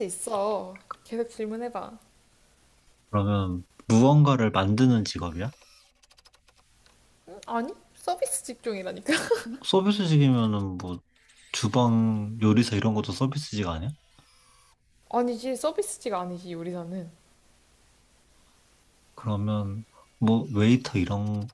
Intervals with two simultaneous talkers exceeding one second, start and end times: none

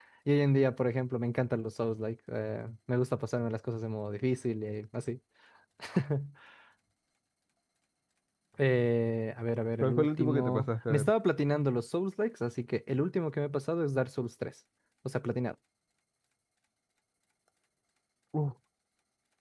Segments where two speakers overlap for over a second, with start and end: 9.8-11.1

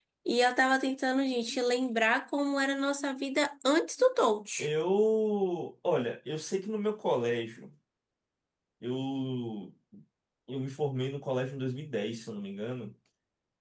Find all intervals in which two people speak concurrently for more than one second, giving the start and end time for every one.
none

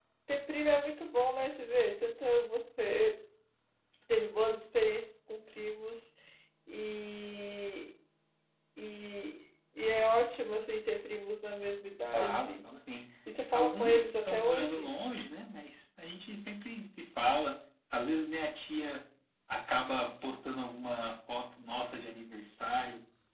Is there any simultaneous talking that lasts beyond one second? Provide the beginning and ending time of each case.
13.5-14.9

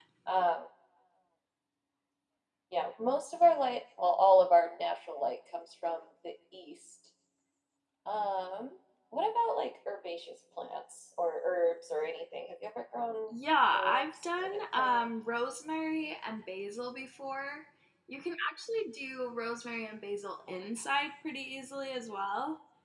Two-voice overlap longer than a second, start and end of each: 13.7-15.1

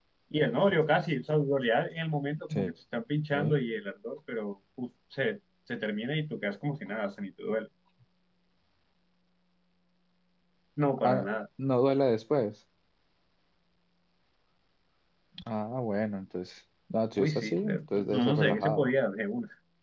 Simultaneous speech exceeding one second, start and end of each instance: 17.2-18.9

